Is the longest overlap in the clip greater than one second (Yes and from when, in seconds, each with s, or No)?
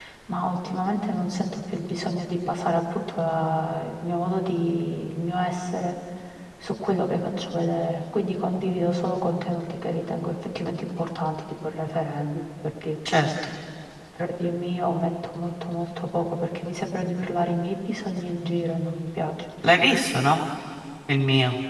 No